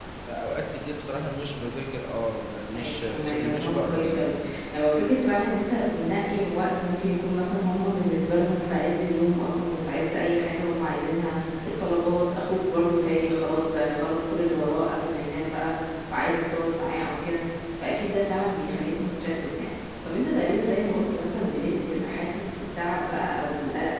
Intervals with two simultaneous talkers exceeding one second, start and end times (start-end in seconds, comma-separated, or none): 2.7-4.3